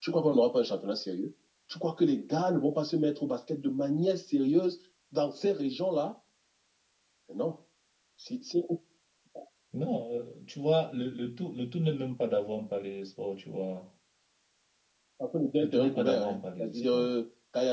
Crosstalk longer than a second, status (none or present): present